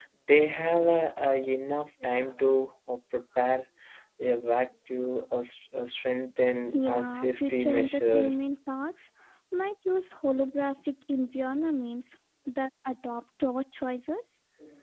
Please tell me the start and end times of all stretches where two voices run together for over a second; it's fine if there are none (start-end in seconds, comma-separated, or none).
6.7-8.3